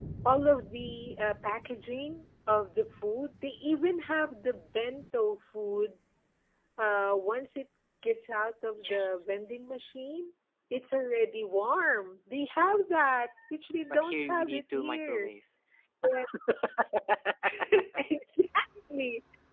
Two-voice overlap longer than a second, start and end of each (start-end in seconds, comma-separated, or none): 13.9-15.3